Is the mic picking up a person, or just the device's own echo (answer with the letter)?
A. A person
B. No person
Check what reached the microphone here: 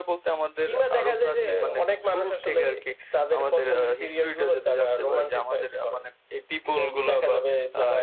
B